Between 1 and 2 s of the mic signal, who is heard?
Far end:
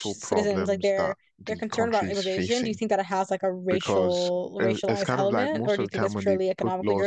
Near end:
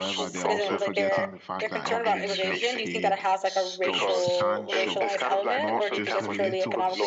both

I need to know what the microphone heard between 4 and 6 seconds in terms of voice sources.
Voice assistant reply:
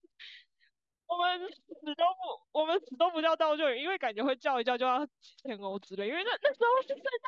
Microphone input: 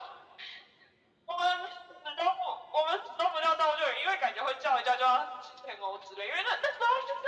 echo only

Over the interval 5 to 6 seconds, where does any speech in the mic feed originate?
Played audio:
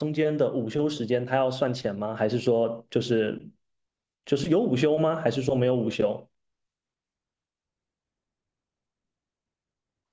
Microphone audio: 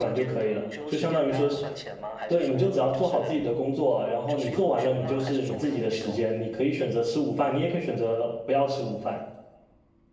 both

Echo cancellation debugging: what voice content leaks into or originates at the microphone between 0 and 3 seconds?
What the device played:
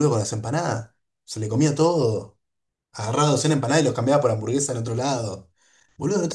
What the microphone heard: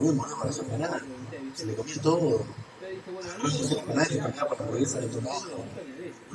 both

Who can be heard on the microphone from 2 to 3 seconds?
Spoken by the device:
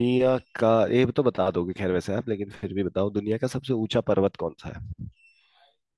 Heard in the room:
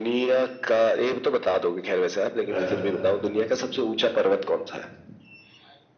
both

